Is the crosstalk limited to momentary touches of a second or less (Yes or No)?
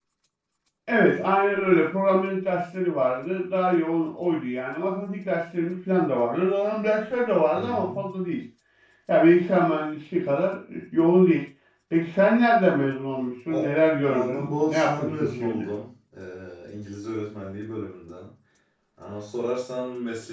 No